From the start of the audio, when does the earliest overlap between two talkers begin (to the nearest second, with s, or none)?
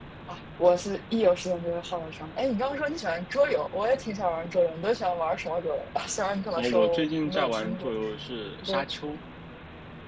7 s